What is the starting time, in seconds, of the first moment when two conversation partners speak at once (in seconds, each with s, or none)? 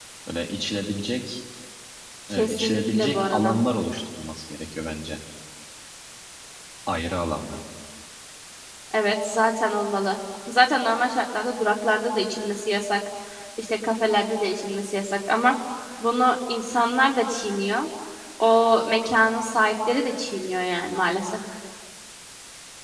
2.3 s